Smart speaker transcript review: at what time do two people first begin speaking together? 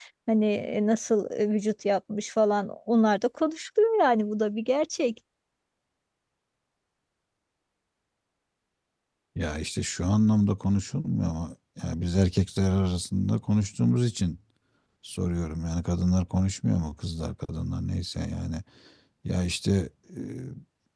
none

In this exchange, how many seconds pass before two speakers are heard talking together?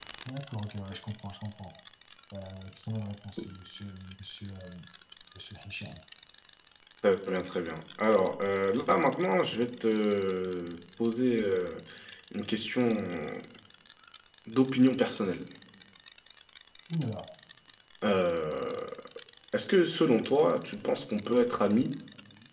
none

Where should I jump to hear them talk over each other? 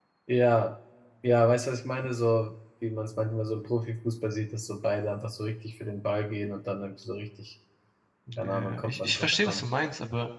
8.4 s

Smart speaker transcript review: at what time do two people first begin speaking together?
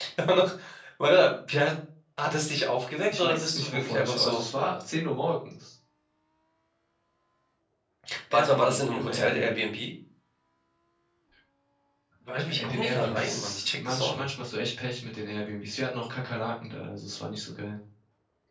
3.2 s

